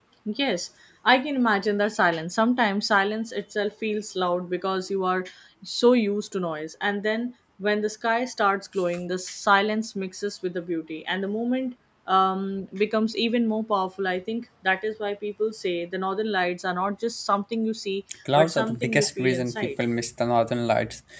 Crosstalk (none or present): present